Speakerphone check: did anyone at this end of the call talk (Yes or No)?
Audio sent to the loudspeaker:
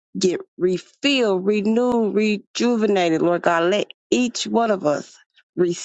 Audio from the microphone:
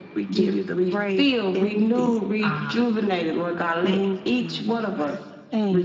Yes